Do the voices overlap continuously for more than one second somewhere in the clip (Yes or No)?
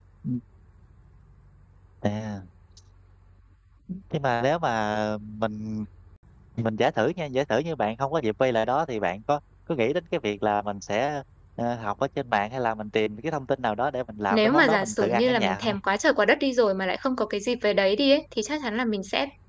Yes